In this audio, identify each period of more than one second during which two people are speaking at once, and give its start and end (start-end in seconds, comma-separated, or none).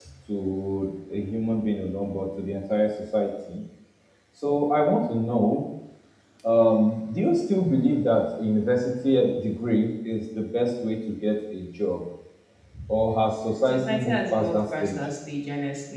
13.6-15.0